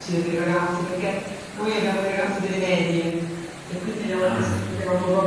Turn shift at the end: No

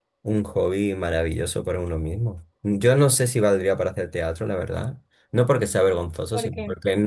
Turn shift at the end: No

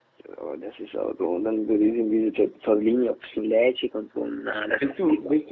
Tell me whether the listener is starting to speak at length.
Yes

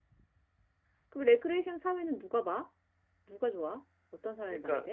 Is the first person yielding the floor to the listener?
Yes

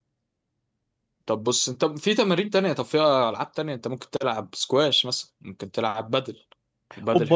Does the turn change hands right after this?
Yes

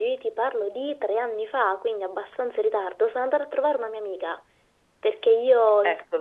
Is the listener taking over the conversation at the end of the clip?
No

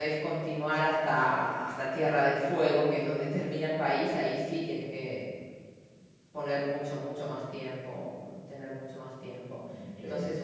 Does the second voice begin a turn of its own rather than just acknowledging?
No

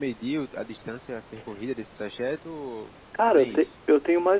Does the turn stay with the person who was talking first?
No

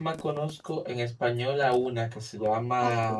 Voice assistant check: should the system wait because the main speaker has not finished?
Yes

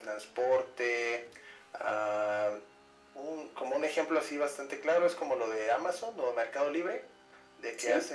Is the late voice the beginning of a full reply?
No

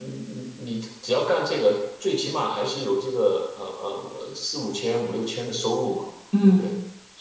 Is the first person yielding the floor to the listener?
No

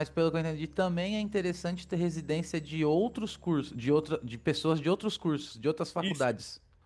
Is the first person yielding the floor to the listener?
Yes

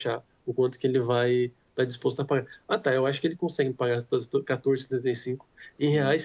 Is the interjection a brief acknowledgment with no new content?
Yes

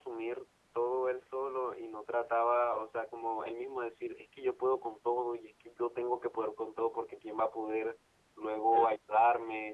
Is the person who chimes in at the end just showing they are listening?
Yes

